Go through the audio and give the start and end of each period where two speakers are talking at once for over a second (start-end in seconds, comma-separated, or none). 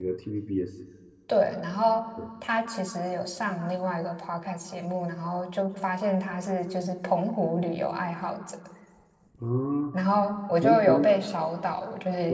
none